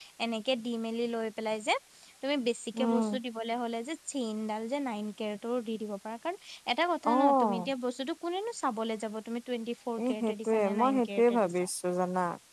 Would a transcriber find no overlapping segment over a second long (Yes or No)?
No